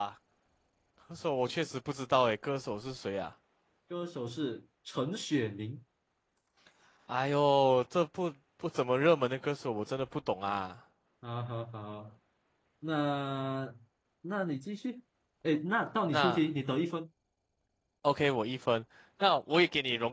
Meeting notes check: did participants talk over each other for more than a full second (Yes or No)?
No